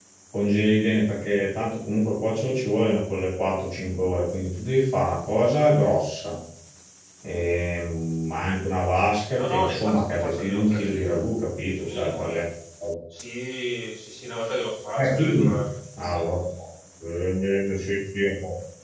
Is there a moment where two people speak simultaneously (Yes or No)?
Yes